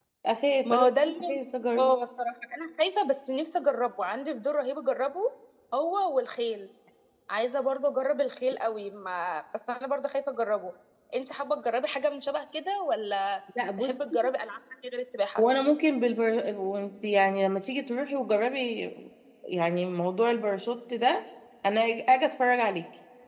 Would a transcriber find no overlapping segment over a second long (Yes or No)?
Yes